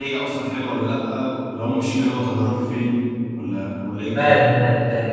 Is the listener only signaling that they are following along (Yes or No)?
No